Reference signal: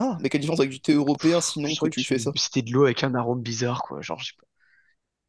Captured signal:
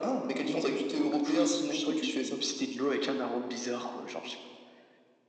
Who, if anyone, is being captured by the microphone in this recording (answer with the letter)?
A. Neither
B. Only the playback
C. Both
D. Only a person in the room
B